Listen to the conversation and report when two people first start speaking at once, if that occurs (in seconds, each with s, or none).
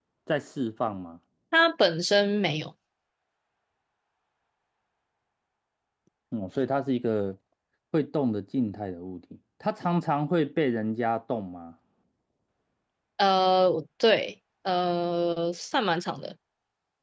none